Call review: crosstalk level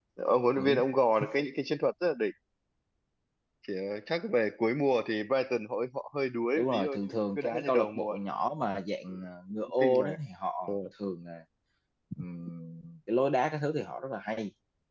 present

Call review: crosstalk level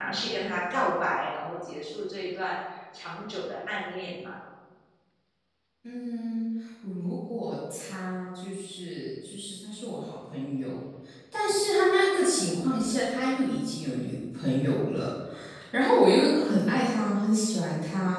none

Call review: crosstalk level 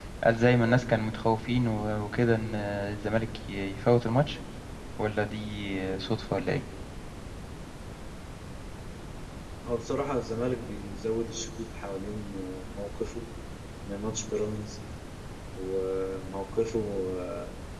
none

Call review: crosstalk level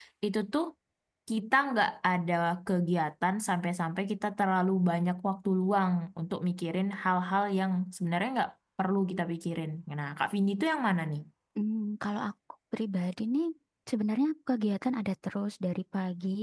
none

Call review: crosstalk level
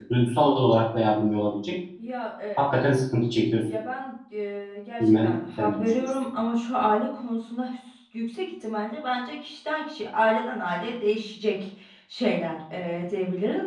present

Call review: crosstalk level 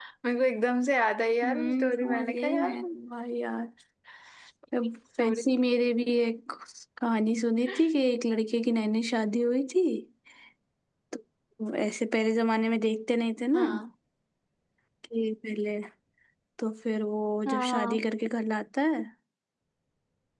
present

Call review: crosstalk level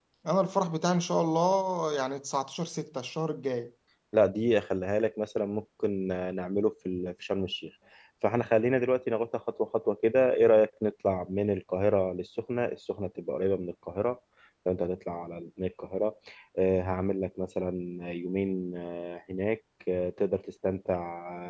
none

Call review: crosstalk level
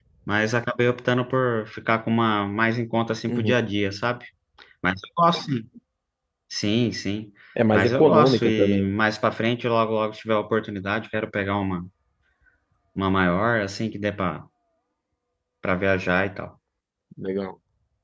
present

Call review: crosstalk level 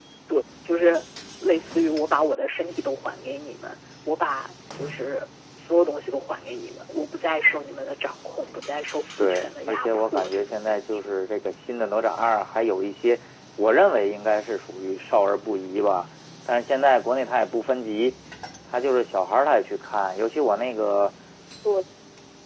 present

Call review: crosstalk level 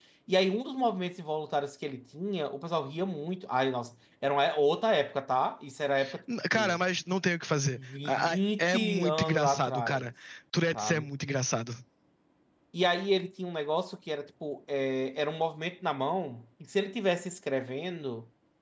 present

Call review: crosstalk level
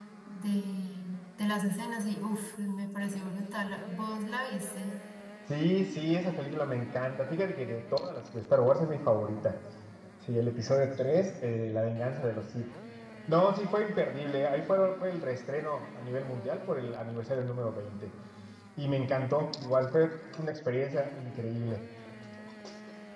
none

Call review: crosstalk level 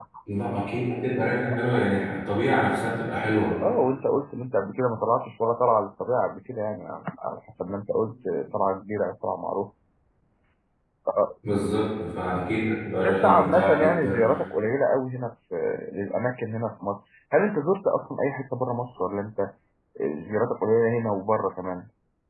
present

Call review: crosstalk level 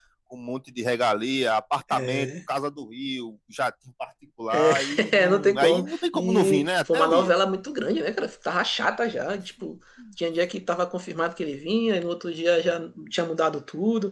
present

